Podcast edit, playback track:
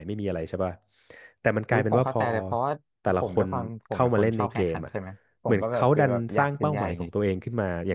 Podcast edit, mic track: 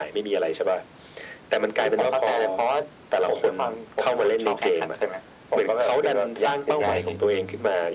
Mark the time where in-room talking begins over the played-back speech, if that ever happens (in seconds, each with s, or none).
6.8 s